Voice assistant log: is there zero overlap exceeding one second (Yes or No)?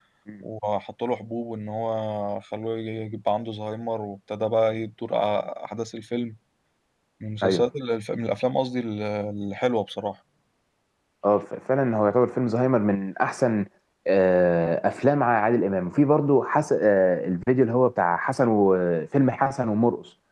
Yes